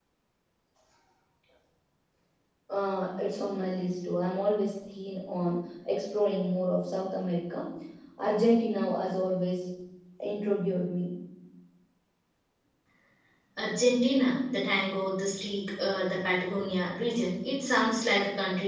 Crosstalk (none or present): none